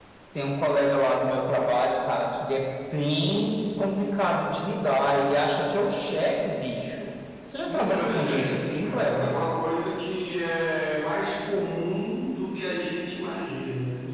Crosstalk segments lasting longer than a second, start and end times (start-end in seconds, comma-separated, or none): 7.7-9.3